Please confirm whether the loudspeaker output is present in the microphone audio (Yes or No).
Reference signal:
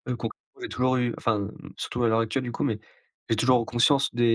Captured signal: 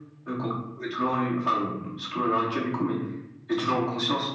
Yes